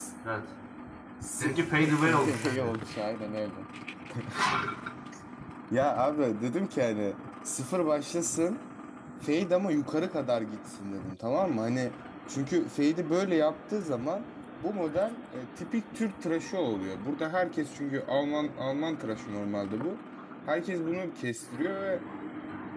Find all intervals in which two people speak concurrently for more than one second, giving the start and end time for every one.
1.4-2.8

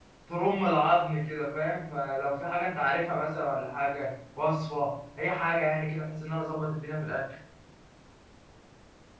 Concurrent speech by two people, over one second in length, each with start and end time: none

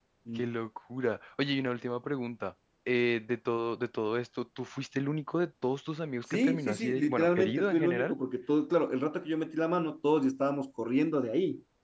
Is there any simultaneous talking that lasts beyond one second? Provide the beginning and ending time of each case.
6.3-8.2

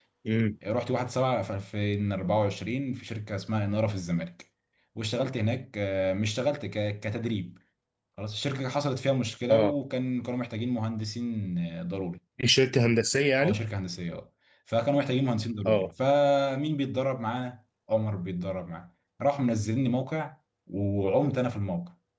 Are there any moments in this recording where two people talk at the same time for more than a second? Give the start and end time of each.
none

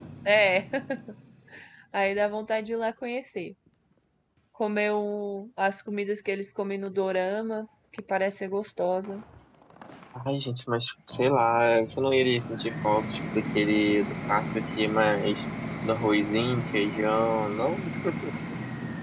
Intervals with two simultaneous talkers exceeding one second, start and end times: none

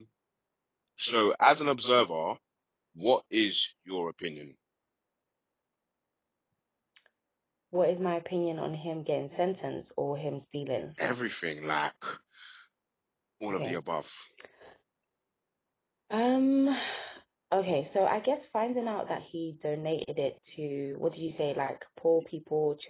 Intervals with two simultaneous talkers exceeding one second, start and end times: none

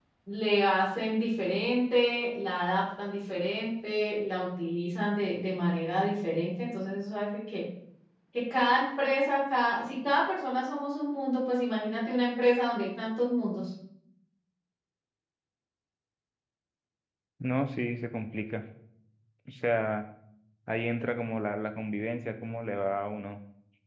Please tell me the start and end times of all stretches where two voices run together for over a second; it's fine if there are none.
none

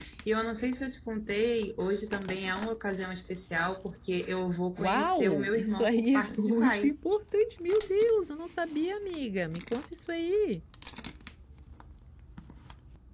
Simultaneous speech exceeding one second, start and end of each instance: 4.8-6.9

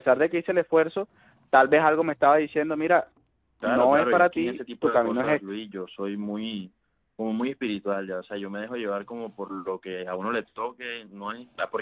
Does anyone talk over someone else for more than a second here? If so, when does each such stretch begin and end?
3.6-5.4

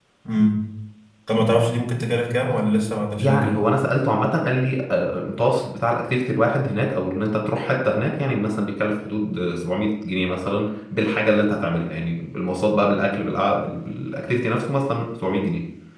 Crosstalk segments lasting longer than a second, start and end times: none

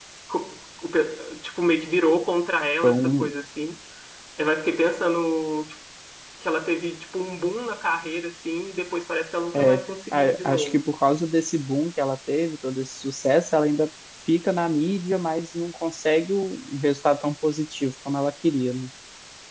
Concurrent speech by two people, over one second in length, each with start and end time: 9.5-10.8

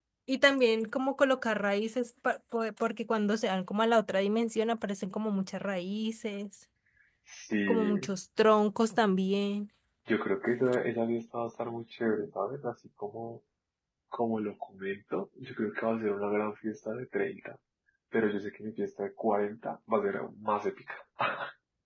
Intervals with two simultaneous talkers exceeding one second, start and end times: none

